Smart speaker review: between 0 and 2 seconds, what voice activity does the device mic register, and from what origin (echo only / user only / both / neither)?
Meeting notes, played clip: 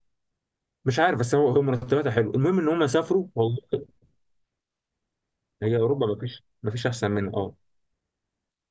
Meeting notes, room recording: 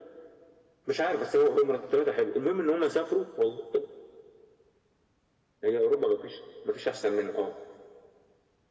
echo only